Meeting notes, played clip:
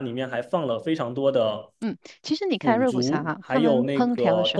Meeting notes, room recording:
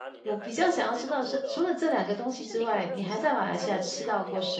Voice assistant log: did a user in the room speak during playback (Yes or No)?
Yes